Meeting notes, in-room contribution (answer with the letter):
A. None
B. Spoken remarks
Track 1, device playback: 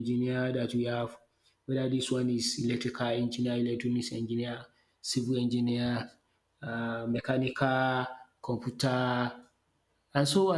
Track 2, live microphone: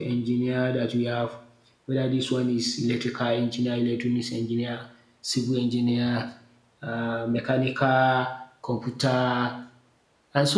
A